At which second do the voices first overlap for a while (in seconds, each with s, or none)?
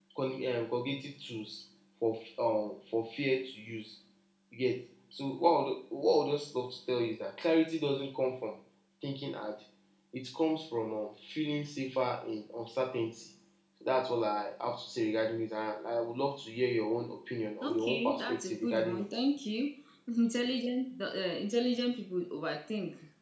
17.6 s